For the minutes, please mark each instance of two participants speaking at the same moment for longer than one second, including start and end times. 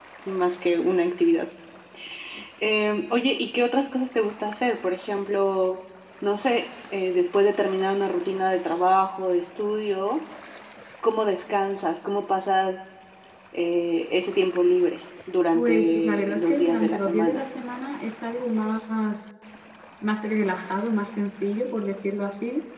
15.5-17.4

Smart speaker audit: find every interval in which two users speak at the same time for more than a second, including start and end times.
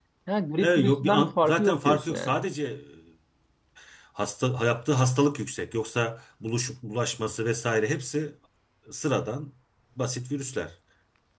0.6-2.4

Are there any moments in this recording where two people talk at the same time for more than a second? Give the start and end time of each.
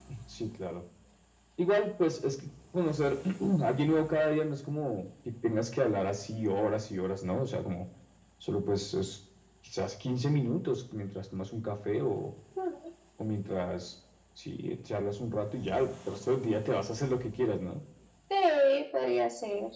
none

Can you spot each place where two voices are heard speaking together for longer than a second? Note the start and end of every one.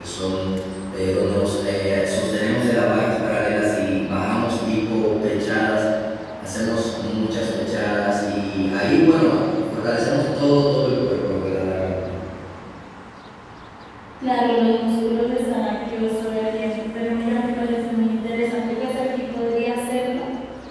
none

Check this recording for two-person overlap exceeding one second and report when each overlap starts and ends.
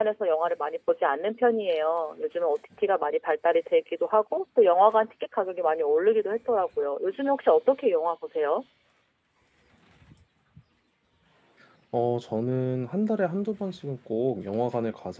none

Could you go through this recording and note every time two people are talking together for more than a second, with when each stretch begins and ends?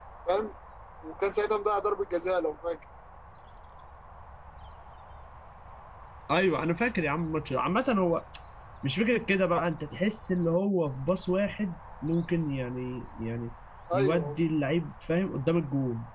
none

